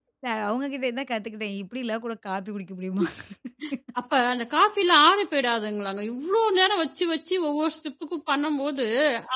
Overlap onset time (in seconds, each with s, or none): none